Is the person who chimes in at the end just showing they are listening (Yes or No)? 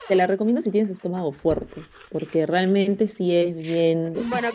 No